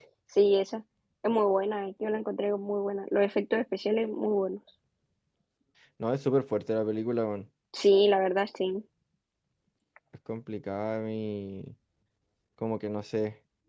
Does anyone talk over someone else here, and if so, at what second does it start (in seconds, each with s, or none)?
none